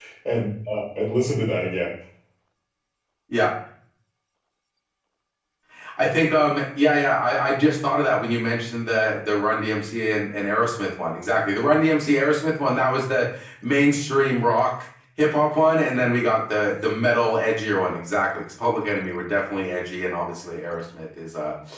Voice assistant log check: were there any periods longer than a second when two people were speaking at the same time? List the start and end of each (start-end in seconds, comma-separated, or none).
none